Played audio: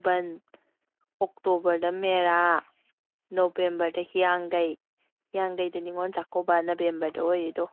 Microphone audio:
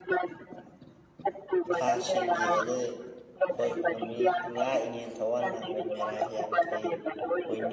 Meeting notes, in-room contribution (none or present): present